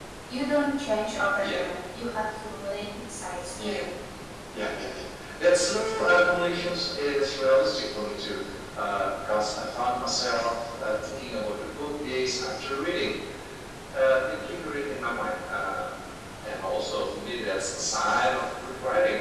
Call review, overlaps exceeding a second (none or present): none